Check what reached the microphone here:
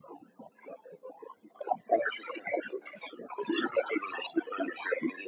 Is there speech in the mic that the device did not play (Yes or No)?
No